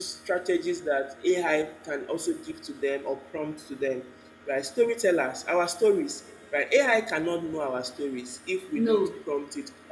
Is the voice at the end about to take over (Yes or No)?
No